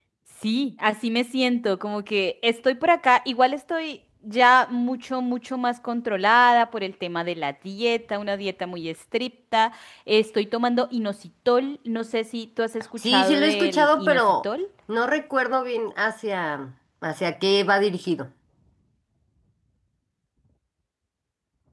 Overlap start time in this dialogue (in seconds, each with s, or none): 13.0 s